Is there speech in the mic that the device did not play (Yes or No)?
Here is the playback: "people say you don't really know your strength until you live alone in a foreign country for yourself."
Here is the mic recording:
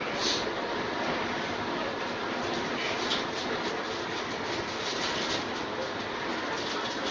No